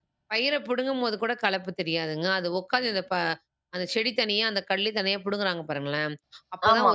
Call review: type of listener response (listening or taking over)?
listening